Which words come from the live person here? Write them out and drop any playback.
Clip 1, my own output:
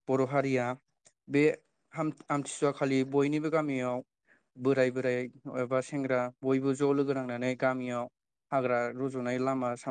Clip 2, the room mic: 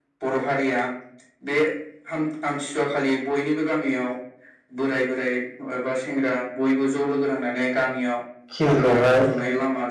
खिल खौहाय

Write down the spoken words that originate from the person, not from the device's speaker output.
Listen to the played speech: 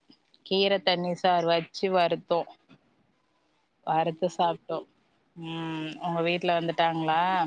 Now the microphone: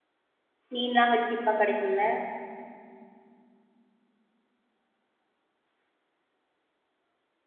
மீன்லா அங்க சீப்பா கெடைக்குல்ல

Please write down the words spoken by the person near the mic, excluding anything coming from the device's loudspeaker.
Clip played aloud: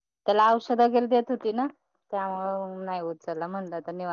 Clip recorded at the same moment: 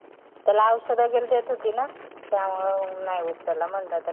none

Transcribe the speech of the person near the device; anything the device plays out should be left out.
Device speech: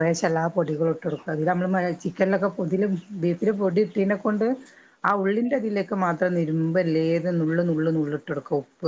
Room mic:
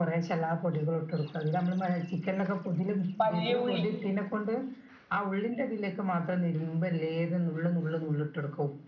വല്ല്യള്ളി.

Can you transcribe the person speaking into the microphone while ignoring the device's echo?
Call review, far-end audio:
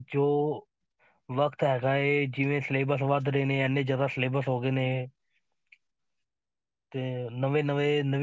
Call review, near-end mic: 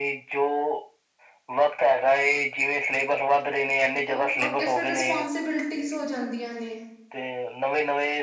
ਓਕੇ, ਓਕੇ ਫਿਰ ਰਿਸਪੋਂਸੀਬਿਲਟੀਜ਼ ਹੋ ਜਾਂਦੀਆਂ ਨੇ।

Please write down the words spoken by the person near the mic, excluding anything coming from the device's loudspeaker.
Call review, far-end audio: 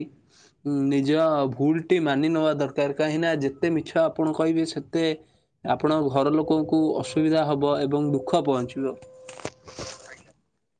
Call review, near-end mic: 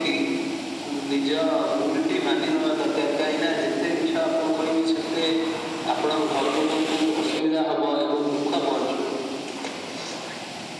none

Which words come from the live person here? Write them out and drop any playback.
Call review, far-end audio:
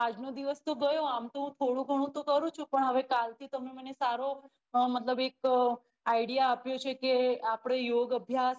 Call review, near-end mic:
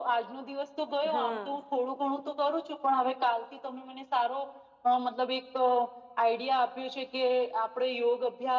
હા

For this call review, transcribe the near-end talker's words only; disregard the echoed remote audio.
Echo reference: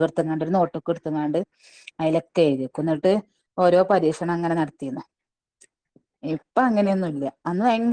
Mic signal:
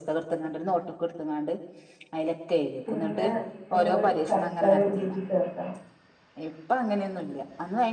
പിന്നെ നമ്മള് ശർക്കര ഉരുക്കി ചേർക്കണം

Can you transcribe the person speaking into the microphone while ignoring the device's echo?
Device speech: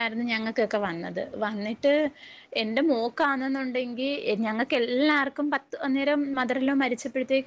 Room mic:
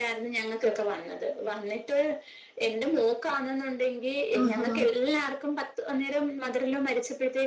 ആഹാ

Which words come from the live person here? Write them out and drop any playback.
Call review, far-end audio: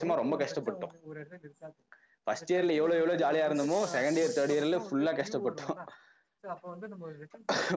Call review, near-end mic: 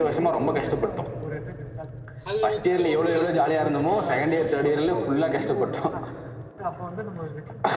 அது வந்து சொல்லுவாங்கல

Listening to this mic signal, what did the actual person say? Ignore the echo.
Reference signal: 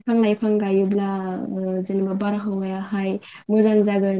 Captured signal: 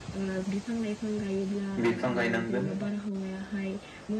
बिफां गायनांगोन

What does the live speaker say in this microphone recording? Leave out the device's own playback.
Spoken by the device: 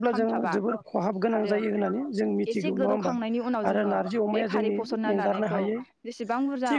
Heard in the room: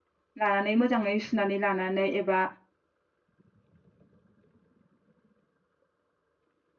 लानानै मोजाङै सुनानै लानानै एबा

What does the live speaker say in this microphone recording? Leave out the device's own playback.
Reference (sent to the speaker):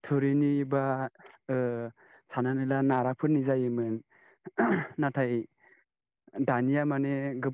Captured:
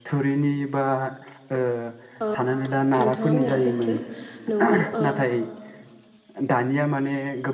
ओ नोंथाङा मैया रैथो नंगौ ओ

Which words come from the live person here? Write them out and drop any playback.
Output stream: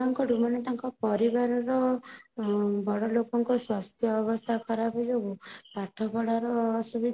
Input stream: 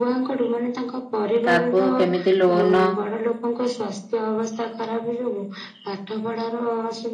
ତାକୁ କେମିତି ଲୋନ

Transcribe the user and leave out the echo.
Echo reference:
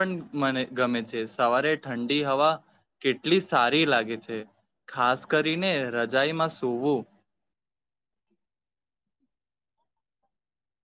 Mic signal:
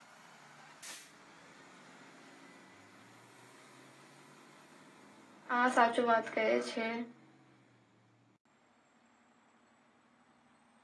આ સાચું વાત કહે છે,

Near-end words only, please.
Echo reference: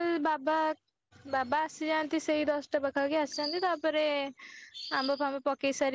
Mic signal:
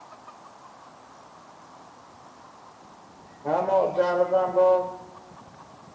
ହଁ ମୋ ଅଜାହାର ତ ଆମ୍ବ

